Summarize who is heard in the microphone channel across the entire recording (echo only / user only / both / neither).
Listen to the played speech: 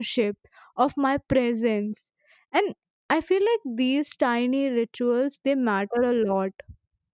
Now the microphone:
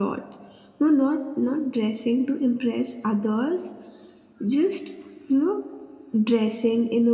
user only